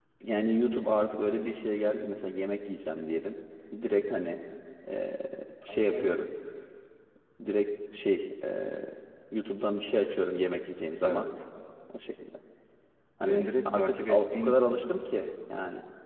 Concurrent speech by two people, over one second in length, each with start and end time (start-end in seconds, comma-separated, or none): 13.2-14.7